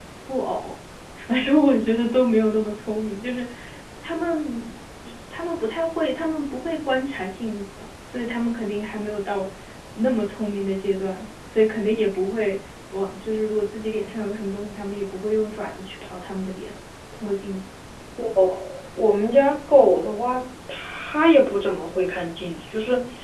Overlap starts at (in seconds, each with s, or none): none